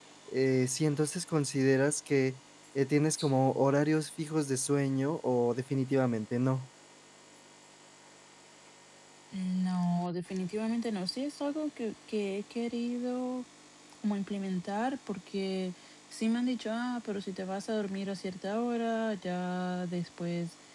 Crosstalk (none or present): none